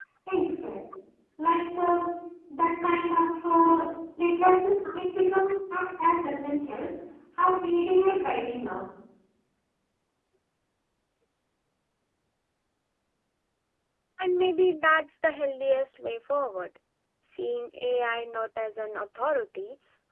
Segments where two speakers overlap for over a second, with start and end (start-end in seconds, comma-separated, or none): none